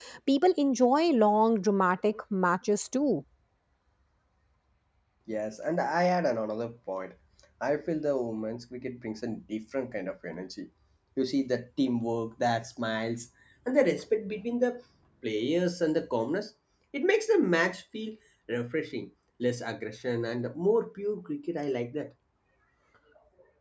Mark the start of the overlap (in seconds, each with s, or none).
none